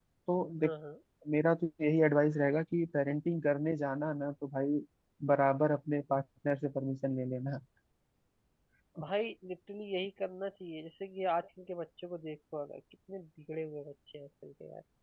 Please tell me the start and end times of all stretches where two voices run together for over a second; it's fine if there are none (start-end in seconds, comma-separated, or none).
none